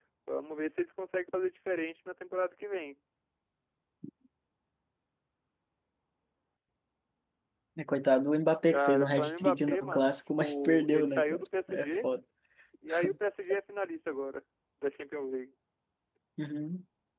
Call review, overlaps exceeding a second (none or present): present